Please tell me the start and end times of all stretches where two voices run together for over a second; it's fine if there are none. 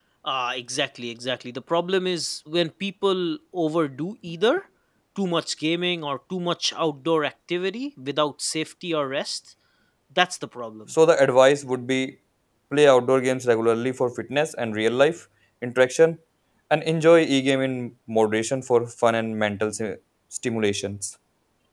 none

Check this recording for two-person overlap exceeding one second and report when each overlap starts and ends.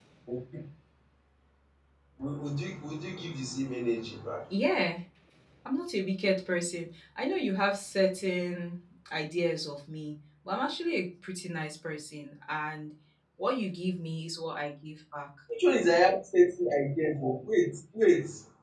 none

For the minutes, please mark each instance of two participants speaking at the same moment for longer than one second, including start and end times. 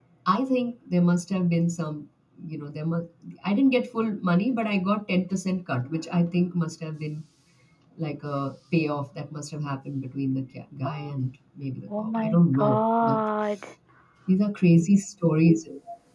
12.0-13.2

